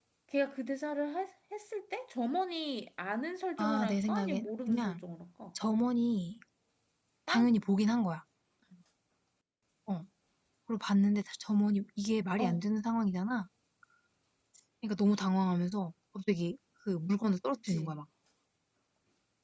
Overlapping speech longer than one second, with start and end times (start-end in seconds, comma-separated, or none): 3.6-5.0